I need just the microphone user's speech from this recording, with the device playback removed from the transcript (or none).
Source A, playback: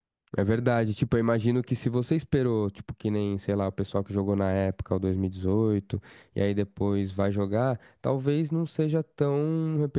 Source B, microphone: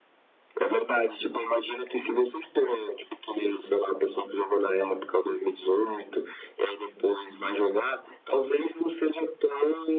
none